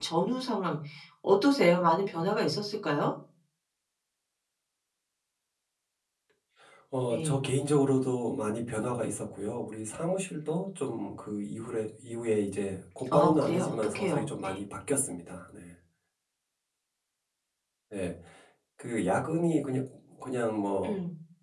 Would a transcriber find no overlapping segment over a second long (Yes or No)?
No